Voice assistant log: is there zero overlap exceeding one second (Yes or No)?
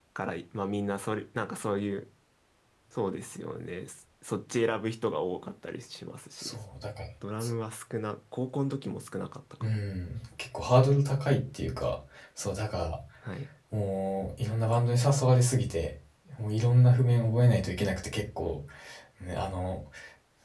Yes